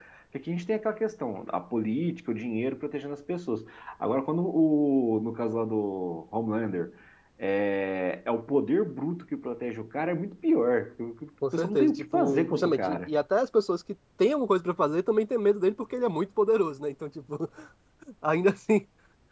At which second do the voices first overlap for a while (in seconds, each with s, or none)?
11.4 s